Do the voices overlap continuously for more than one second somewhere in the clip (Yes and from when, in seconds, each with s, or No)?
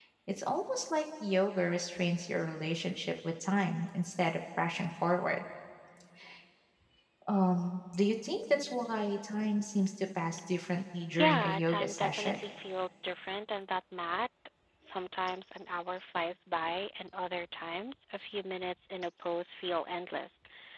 Yes, from 11.1 s